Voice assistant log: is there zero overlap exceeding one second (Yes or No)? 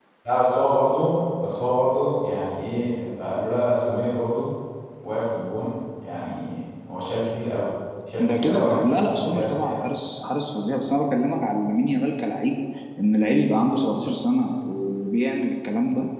No